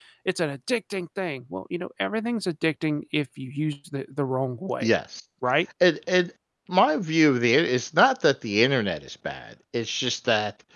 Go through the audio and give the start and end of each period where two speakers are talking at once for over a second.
none

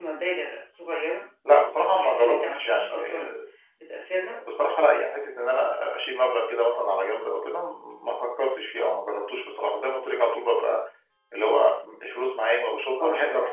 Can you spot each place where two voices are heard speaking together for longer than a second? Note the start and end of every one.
1.9-3.3

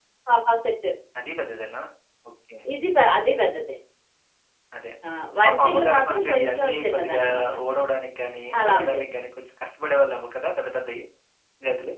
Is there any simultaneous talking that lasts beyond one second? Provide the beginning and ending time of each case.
5.5-7.2

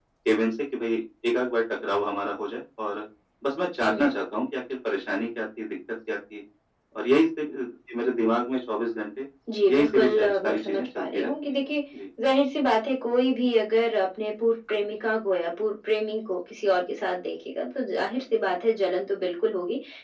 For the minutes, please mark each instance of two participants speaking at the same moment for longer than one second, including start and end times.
9.7-11.6

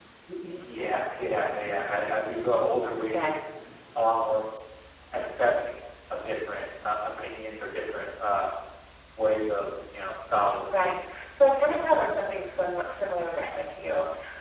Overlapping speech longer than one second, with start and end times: none

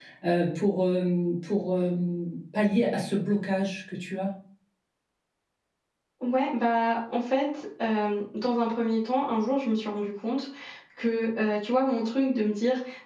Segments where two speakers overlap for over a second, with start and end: none

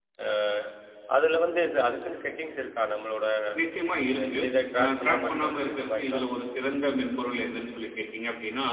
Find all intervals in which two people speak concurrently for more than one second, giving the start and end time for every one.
4.8-6.2

